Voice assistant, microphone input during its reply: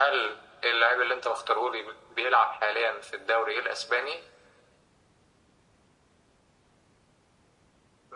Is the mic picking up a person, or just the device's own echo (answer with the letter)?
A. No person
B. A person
A